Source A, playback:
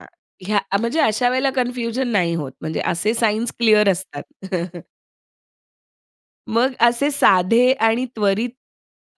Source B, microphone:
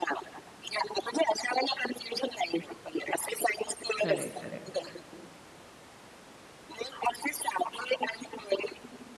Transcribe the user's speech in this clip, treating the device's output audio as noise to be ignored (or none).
खरंय, खरंय.